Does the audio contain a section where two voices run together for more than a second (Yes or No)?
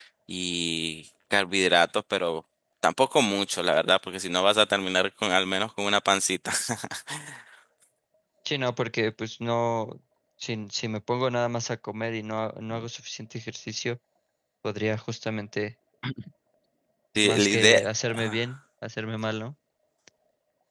Yes